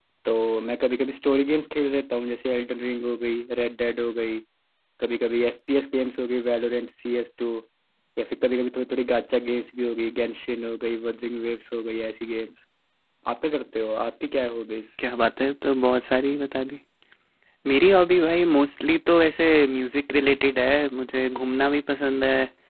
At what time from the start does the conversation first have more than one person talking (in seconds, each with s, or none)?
none